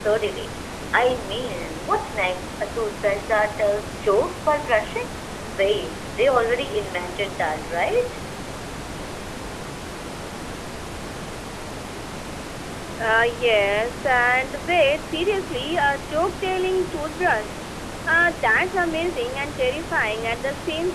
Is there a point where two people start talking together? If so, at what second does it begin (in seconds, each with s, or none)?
none